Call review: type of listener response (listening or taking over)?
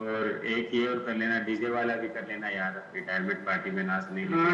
taking over